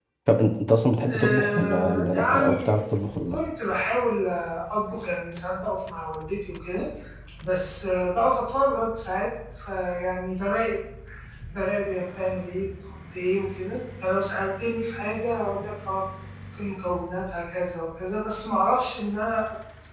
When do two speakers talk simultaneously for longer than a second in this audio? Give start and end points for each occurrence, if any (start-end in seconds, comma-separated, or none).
1.1-2.8